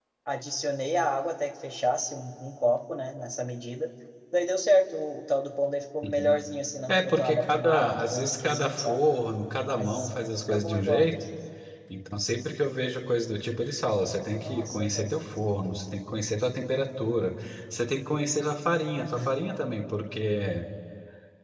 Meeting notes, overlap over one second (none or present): present